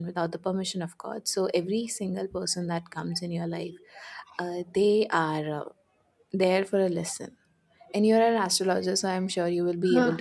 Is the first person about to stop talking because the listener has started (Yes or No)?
No